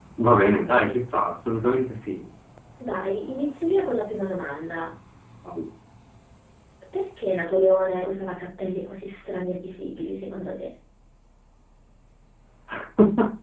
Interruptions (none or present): none